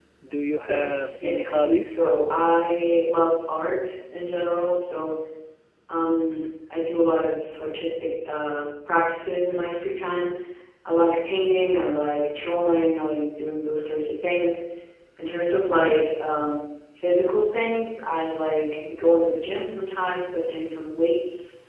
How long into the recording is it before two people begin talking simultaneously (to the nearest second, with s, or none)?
1 s